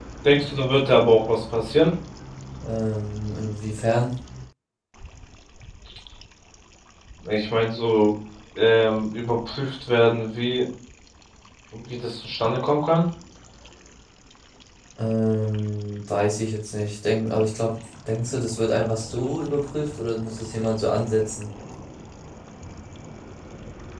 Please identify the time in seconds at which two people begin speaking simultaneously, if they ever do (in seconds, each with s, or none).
none